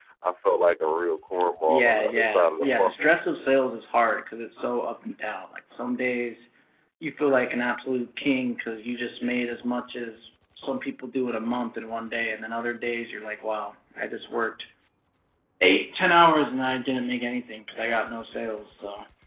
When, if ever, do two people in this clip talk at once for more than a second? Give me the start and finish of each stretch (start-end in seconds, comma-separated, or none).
1.7-2.9